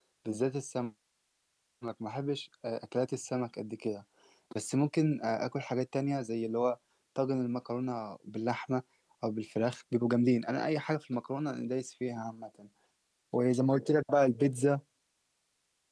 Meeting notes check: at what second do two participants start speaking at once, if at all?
none

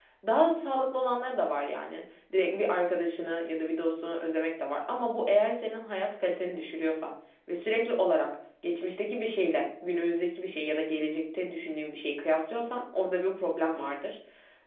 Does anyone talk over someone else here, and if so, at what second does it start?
none

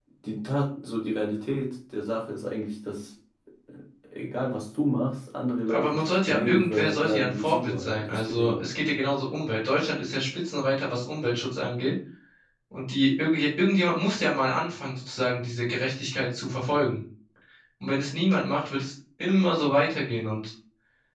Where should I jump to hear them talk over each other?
5.7 s

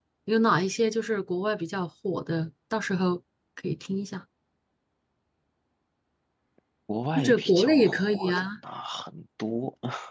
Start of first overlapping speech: 7.2 s

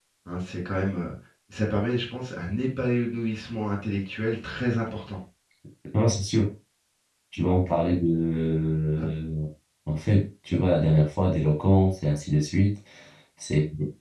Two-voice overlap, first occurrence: none

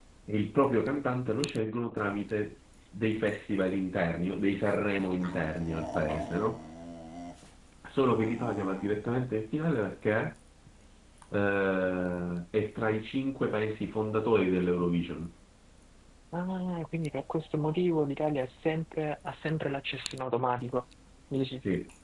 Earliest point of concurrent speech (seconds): none

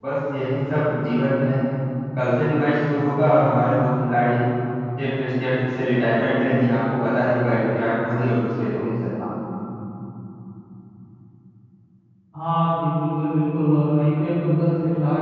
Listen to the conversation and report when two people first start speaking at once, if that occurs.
none

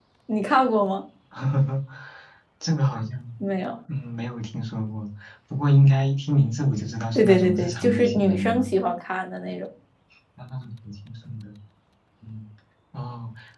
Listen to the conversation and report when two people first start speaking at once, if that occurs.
7.2 s

